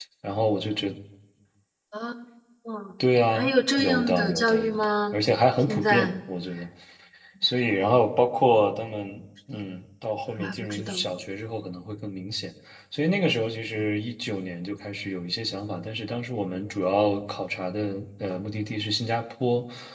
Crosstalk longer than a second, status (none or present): present